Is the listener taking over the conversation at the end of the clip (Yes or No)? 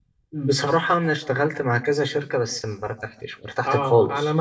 Yes